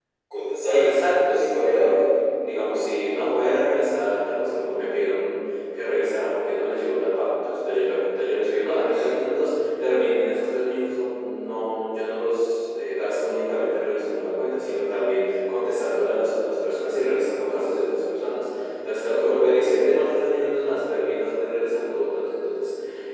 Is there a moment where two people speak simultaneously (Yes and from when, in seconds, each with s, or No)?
Yes, from 0.7 s